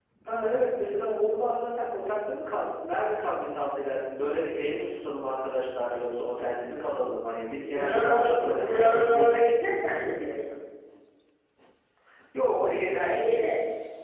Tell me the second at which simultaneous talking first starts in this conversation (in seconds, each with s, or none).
7.5 s